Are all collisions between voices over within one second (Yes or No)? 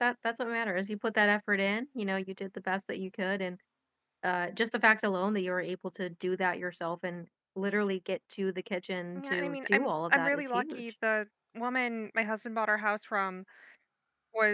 No